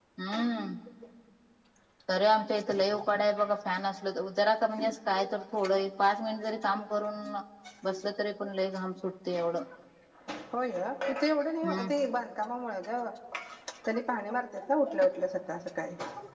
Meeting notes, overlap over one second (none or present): none